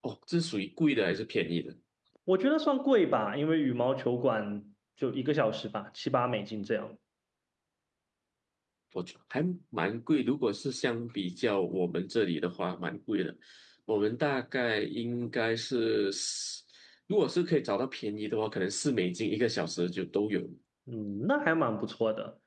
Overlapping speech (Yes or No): No